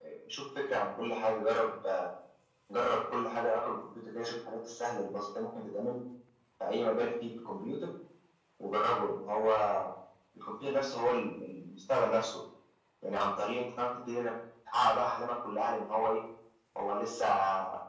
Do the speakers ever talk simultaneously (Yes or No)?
No